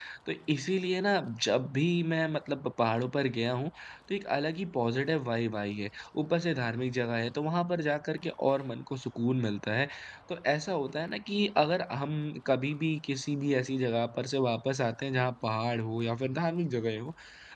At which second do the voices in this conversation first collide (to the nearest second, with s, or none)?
none